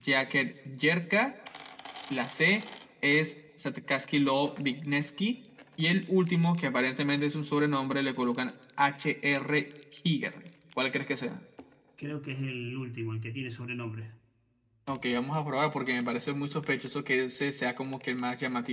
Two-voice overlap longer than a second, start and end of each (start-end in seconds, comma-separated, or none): none